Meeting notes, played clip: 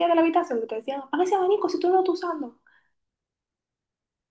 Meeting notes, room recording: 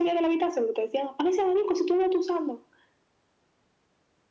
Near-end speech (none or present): none